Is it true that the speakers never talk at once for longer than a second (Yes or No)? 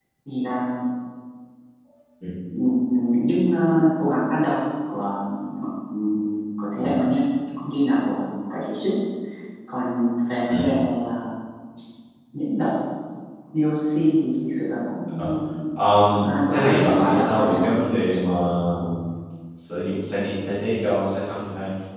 No